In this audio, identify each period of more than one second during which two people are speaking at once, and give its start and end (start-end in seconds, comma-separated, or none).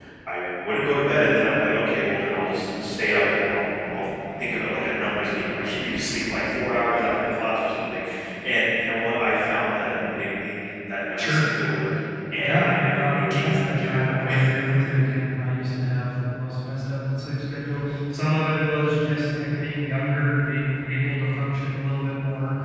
12.4-14.3